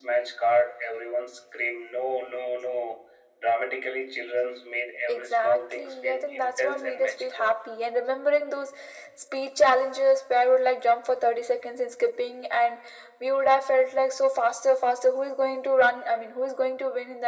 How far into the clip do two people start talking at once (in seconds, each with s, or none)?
5.1 s